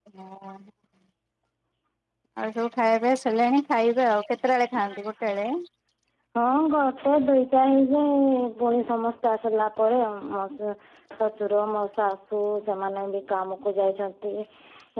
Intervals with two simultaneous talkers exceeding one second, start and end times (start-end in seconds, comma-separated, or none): none